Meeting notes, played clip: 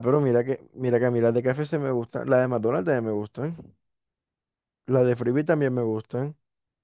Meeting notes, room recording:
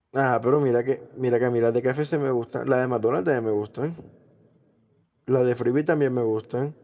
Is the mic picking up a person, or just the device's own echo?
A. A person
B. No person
B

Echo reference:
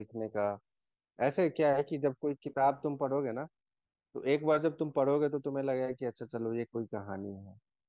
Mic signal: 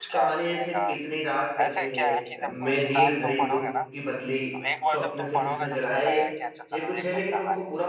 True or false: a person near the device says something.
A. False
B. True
B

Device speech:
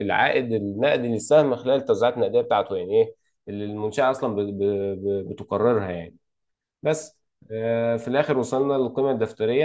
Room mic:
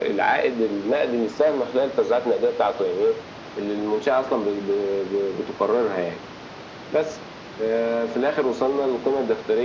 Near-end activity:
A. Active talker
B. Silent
B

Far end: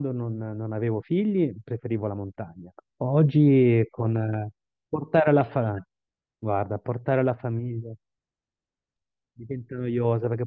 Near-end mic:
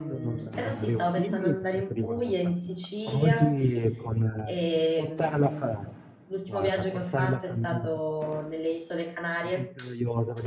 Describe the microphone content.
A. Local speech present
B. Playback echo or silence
A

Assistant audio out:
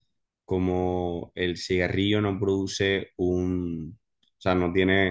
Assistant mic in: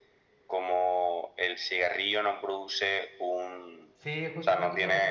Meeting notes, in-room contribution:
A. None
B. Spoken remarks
B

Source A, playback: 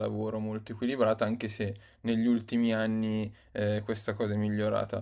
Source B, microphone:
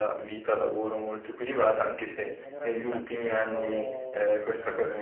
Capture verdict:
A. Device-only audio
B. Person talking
B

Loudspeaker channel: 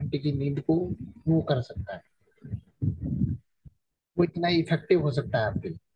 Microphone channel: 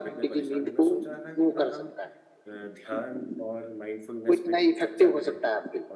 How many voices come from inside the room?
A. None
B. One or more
B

